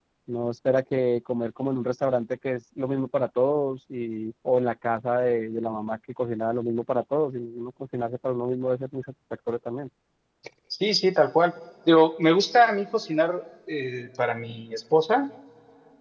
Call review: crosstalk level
none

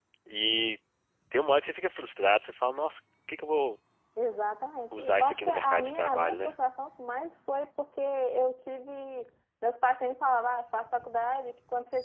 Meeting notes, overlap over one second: present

